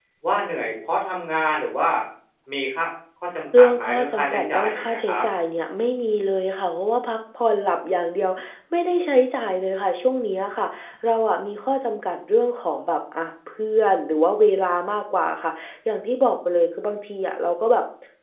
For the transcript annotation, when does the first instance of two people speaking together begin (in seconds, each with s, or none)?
3.5 s